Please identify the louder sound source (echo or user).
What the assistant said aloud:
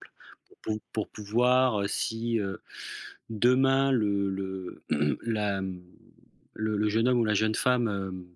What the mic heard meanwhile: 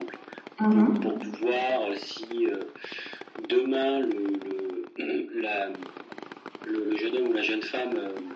user